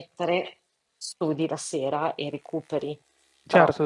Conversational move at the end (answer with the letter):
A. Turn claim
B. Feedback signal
B